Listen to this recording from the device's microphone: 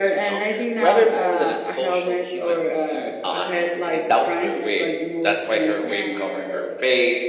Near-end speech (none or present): present